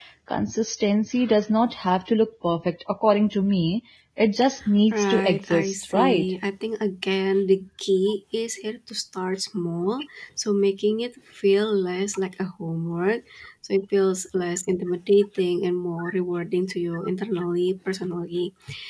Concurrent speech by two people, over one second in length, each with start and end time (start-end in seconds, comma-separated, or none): 4.9-6.2